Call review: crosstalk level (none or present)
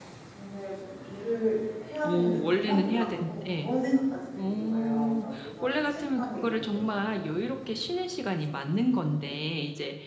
present